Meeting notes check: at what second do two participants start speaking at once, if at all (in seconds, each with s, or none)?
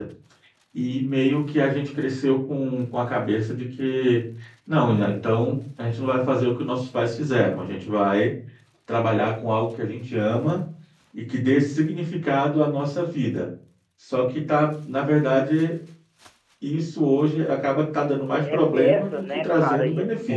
18.3 s